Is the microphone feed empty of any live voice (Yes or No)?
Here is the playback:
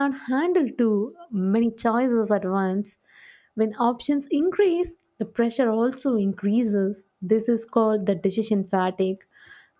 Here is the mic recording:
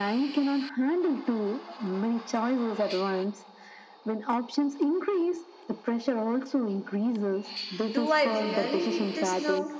No